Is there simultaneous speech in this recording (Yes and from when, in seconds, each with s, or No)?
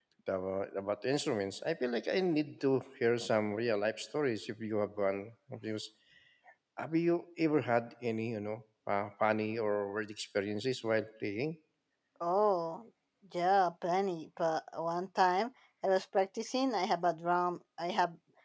No